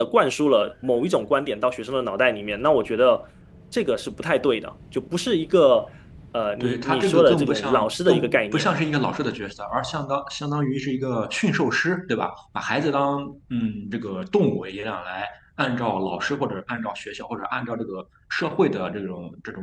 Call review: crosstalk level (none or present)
present